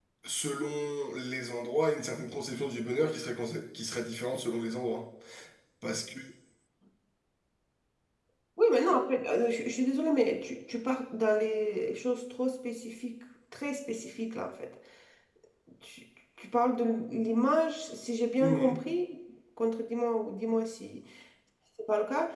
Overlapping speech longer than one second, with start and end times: none

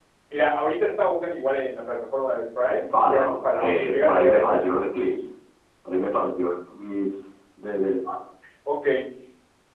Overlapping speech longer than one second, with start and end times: 3.1-4.6

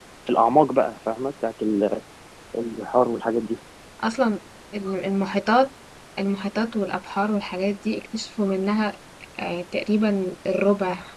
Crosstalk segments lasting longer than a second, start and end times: none

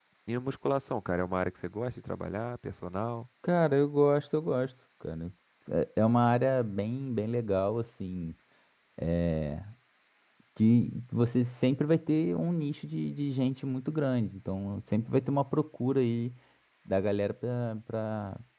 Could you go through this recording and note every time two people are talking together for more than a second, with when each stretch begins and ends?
none

